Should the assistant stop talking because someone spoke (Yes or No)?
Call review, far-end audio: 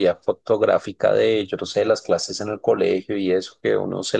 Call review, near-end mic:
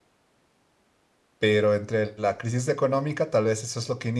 Yes